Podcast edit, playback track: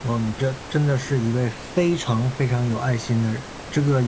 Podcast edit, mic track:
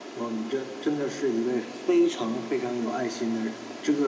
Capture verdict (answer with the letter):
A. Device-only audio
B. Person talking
A